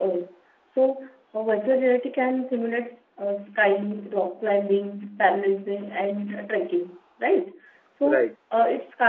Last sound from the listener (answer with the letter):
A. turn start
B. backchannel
B